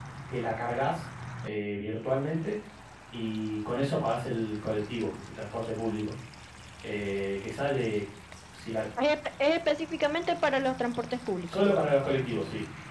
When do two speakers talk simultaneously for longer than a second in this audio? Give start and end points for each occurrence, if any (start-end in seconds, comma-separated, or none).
none